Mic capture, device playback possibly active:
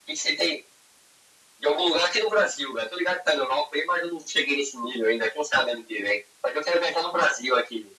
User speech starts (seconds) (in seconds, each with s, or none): none